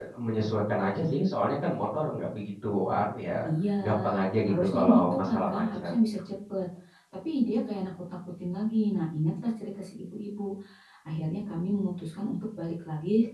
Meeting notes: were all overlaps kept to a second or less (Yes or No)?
No